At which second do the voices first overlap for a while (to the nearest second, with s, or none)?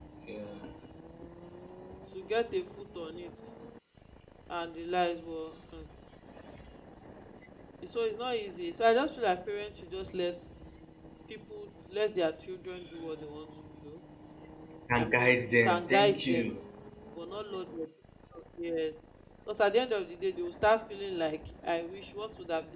15 s